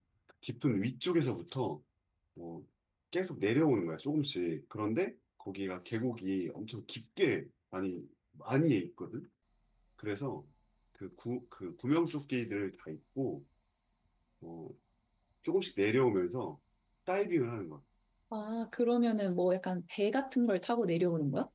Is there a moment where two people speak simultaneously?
No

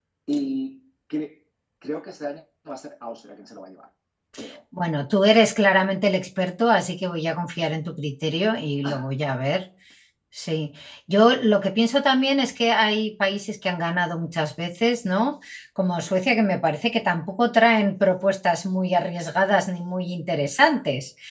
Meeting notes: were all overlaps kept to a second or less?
Yes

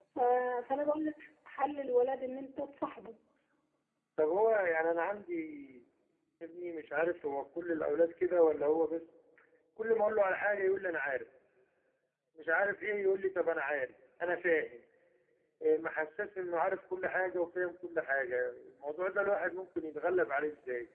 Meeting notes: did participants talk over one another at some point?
No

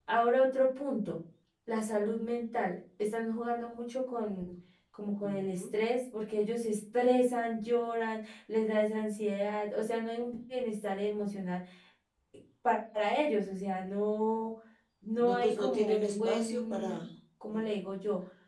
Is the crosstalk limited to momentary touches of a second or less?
No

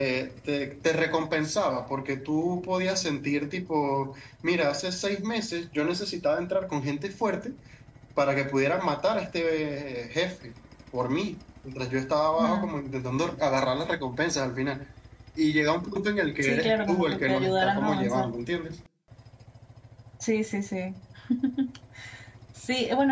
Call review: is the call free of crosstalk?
No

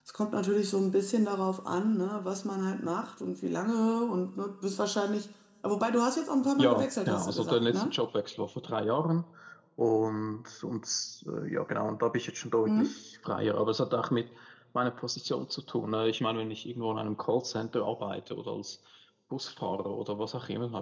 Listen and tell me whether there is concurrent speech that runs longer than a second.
Yes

